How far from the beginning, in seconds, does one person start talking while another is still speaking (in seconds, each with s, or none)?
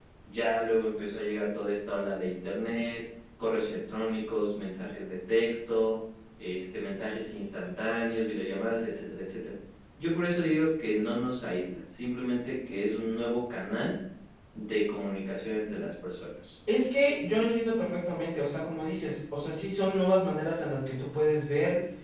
none